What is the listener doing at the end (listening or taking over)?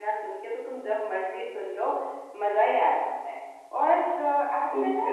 listening